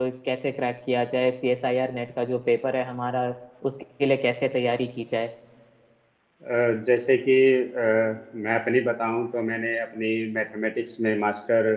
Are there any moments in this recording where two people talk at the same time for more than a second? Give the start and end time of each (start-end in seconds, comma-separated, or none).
none